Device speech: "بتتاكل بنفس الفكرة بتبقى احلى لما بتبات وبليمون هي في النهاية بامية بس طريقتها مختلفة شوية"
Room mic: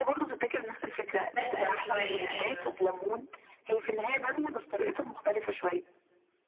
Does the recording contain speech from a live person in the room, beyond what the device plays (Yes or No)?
Yes